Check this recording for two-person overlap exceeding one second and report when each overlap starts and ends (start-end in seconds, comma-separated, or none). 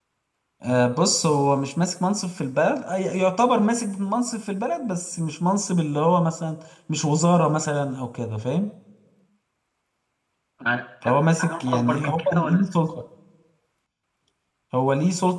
11.0-12.6